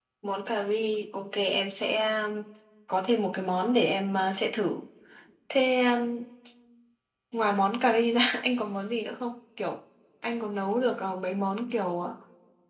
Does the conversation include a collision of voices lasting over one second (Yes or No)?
No